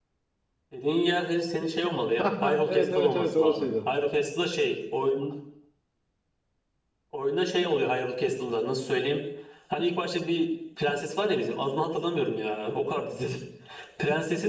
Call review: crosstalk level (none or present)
present